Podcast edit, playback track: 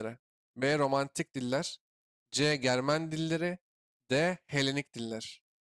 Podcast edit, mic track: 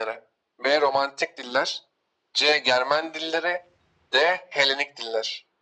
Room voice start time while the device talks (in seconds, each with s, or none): none